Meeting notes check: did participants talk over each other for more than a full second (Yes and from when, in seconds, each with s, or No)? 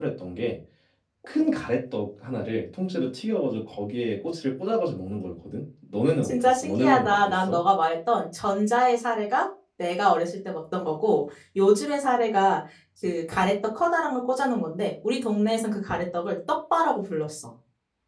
Yes, from 6.2 s